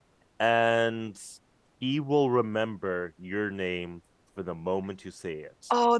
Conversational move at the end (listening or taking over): taking over